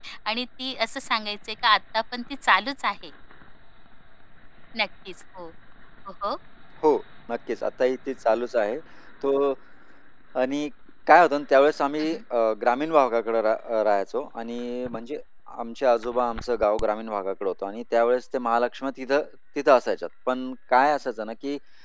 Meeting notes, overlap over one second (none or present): none